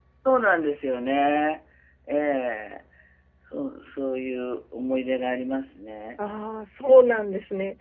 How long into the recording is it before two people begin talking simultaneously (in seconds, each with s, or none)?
none